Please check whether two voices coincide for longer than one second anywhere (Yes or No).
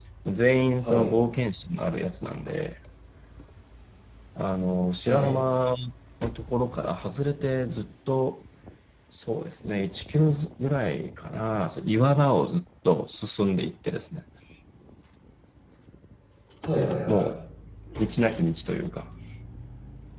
No